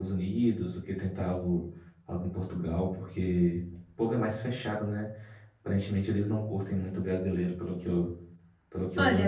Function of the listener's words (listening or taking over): taking over